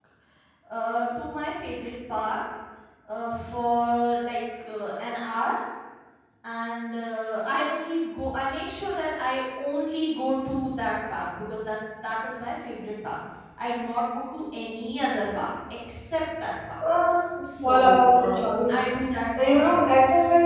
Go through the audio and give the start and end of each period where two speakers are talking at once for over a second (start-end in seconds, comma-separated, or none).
17.6-18.8